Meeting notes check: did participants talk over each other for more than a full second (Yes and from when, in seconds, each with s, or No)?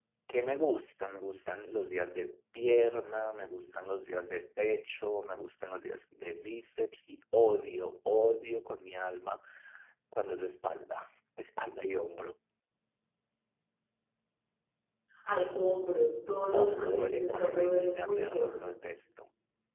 Yes, from 16.5 s